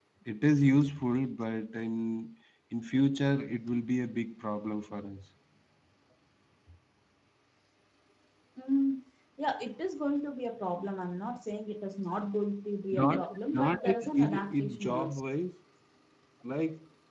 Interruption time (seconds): 13 s

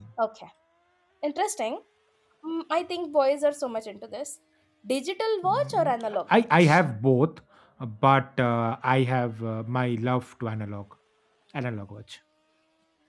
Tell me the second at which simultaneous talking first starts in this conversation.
5 s

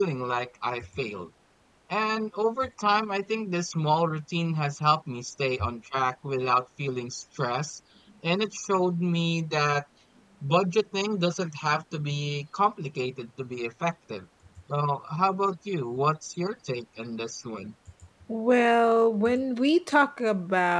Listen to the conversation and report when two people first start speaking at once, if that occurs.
none

